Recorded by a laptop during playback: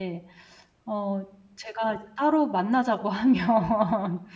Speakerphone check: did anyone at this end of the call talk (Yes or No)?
Yes